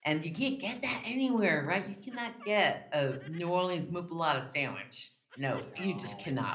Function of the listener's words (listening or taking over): listening